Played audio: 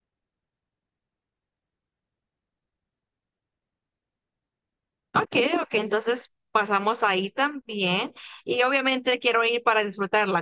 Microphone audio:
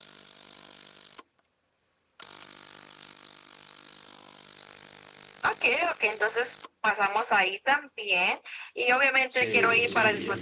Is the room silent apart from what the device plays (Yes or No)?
No